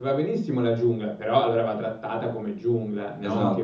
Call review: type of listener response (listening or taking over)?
taking over